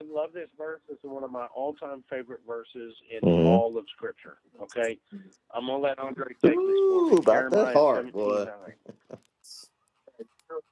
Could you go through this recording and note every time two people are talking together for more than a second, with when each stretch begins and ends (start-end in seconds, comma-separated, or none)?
6.5-8.5